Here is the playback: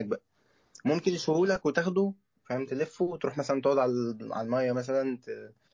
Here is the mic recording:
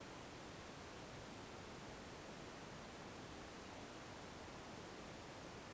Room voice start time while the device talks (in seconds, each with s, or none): none